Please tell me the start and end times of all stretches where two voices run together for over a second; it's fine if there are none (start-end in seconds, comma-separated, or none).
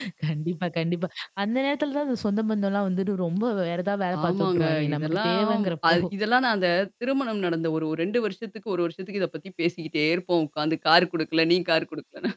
4.2-6.0